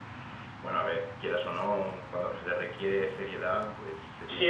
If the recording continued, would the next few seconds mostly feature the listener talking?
Yes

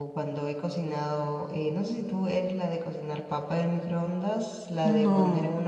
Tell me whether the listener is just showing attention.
Yes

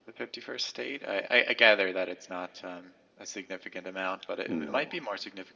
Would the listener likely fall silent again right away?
Yes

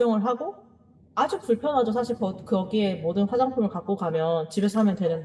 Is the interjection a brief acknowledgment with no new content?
Yes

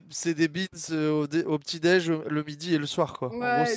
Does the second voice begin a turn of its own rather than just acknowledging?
Yes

